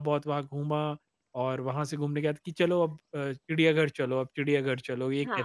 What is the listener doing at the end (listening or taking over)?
taking over